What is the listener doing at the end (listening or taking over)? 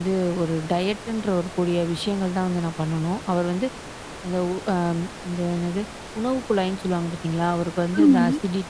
listening